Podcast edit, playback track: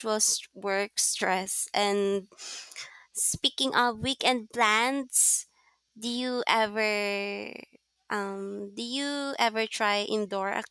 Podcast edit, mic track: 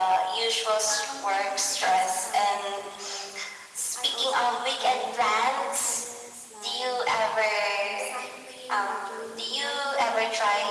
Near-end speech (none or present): present